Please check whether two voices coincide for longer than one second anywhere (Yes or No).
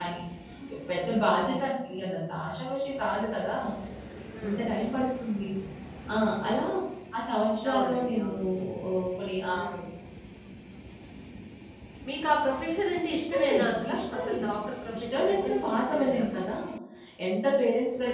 Yes